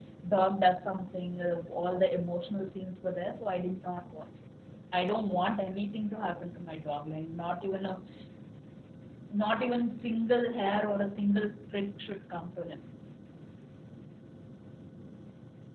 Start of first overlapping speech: none

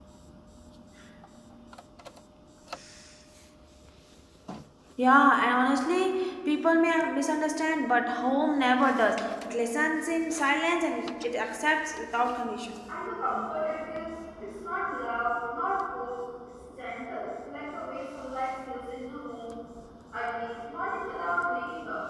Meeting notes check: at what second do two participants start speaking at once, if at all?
none

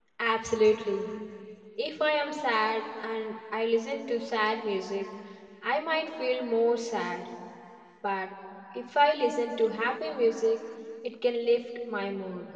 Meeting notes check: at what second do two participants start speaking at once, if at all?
none

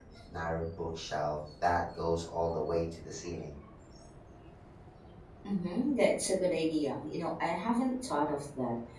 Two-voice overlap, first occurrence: none

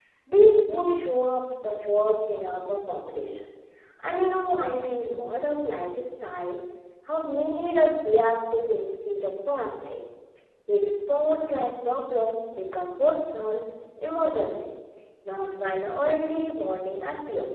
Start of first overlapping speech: none

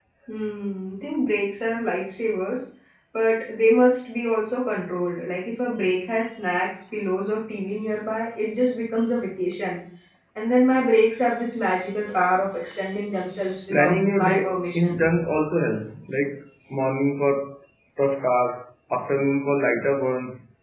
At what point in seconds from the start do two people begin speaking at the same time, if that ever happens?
13.7 s

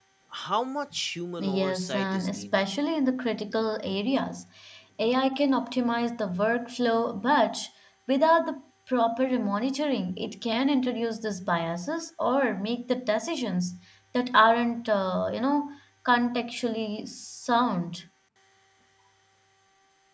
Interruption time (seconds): 1.4 s

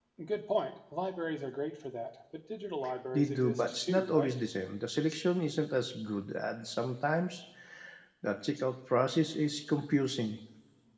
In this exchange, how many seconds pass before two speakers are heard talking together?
3.1 s

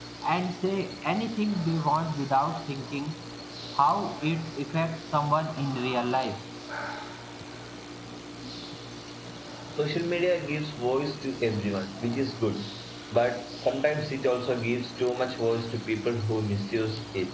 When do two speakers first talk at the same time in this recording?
none

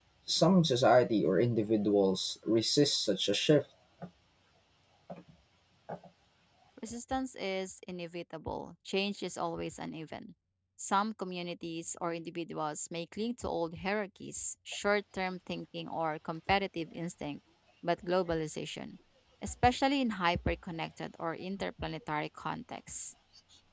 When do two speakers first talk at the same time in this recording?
none

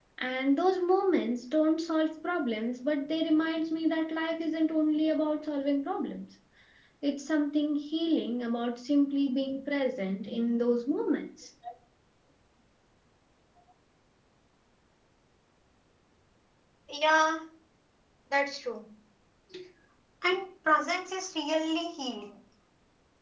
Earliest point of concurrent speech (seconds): none

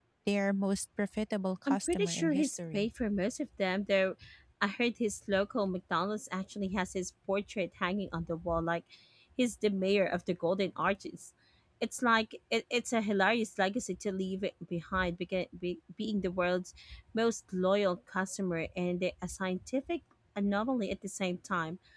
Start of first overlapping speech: 1.7 s

